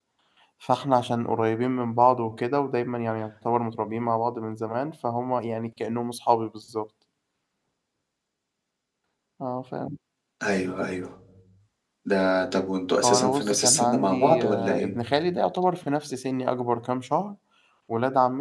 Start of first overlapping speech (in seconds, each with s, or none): 13.0 s